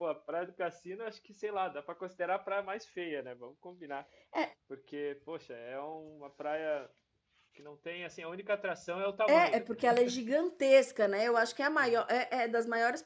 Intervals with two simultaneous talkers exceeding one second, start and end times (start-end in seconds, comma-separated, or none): none